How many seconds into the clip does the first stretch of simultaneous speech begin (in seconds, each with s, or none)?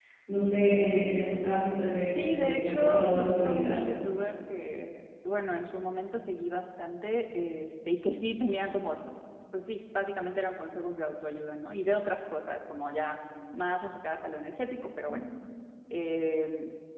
2.1 s